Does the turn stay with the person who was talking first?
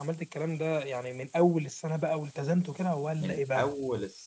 No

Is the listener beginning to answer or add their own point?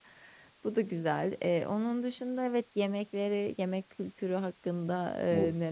Yes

